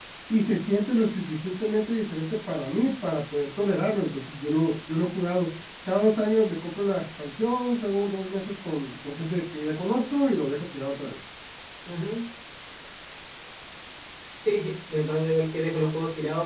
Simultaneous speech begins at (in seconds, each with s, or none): none